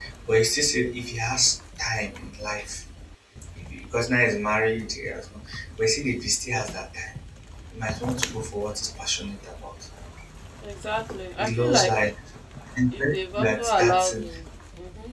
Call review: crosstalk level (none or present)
present